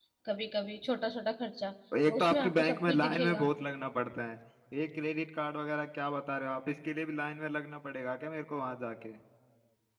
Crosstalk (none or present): present